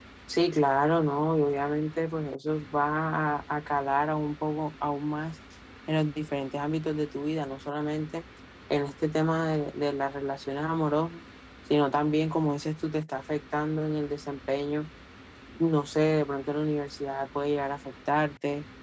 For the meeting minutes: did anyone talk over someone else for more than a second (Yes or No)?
No